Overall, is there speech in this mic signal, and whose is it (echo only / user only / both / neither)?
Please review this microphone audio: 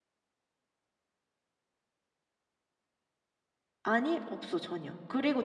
user only